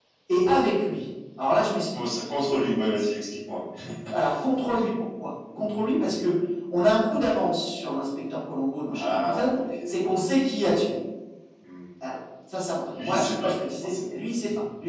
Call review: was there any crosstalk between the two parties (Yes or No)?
Yes